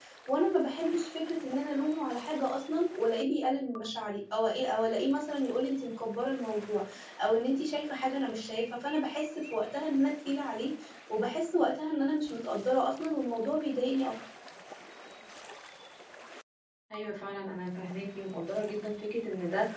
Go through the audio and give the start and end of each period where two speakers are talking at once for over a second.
none

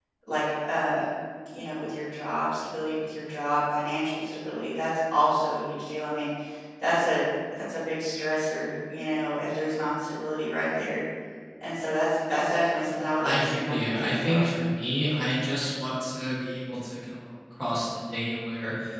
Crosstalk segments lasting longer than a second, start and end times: 13.2-14.5

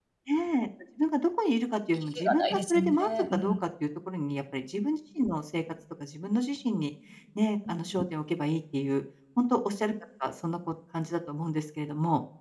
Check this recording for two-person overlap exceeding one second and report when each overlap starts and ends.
2.2-3.5

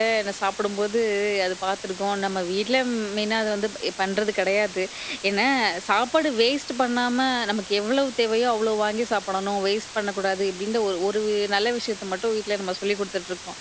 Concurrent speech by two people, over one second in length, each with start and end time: none

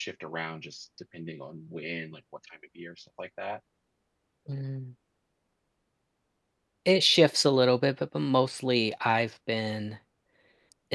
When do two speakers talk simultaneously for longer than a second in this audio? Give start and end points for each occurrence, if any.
none

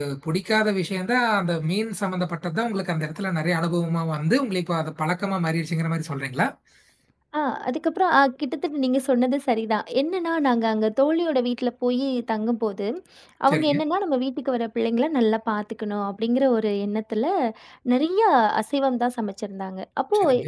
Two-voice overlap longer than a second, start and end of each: none

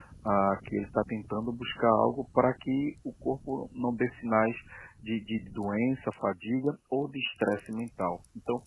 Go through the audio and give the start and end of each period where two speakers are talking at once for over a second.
none

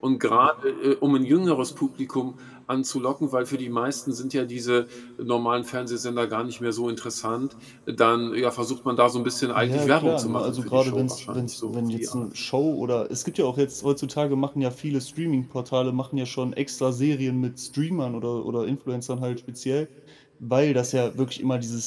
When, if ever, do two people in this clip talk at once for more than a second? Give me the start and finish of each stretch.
9.6-12.2

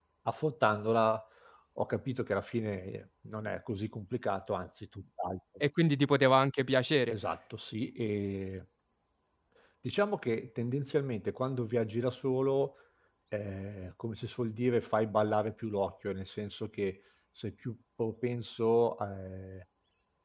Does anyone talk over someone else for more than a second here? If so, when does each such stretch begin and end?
none

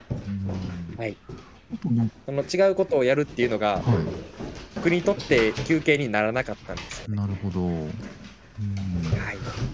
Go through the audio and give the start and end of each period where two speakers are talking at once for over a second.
none

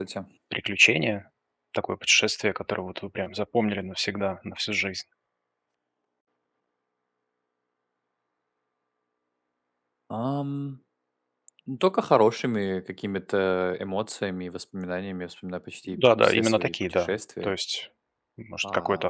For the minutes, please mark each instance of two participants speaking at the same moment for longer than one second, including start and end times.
15.9-17.5

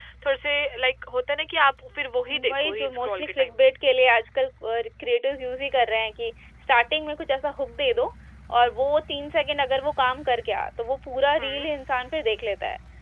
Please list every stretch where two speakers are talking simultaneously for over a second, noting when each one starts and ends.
2.3-3.5

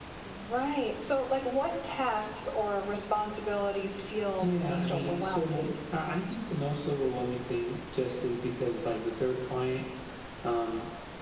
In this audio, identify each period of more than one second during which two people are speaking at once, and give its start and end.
4.4-5.7

